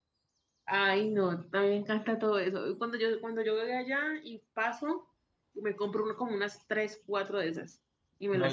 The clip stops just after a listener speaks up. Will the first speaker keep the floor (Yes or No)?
No